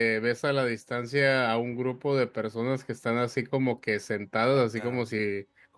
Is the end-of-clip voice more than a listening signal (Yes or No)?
No